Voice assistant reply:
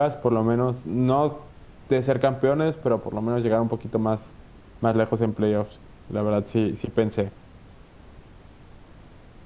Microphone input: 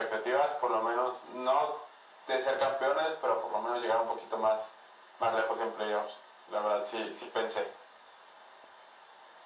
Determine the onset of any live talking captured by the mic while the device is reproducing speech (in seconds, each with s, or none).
none